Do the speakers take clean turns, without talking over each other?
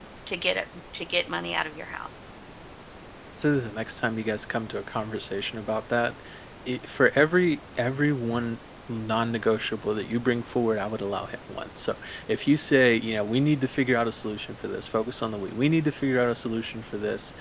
Yes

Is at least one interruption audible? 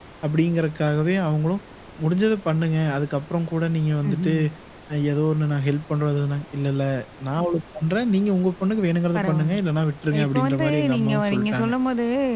Yes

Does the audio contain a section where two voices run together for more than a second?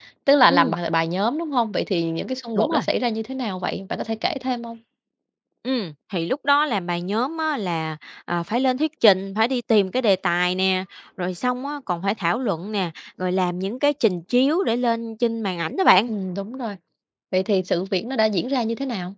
No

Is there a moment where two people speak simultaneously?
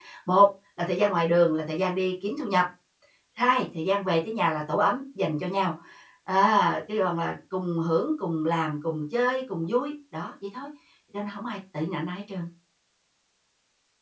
No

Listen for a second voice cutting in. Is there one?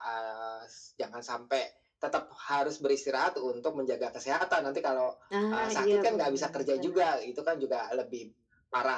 Yes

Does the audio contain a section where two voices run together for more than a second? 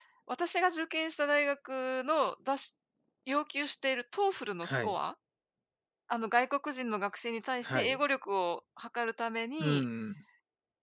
No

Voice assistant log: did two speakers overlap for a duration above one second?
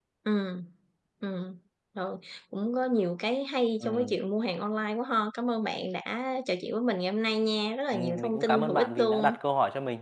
Yes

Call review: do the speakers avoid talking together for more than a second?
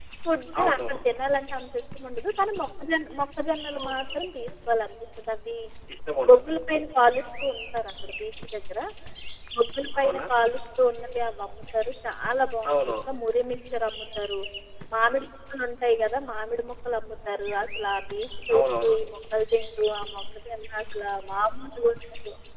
Yes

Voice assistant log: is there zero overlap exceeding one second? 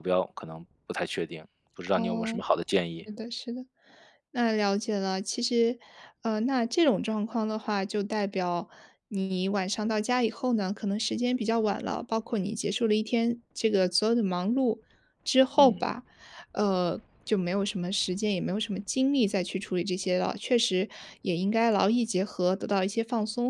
Yes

